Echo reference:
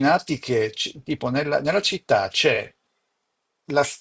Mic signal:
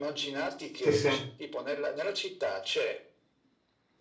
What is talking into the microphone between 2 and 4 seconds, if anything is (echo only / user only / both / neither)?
echo only